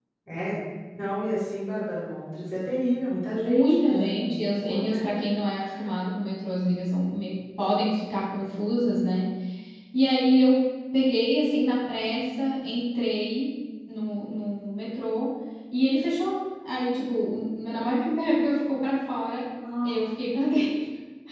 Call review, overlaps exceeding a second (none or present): present